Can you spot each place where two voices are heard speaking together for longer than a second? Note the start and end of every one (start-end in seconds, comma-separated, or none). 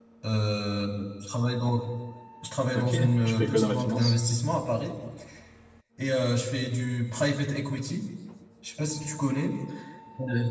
2.7-4.2